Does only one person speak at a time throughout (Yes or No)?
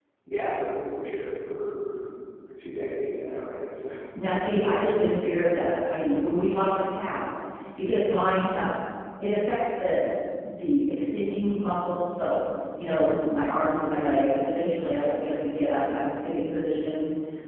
Yes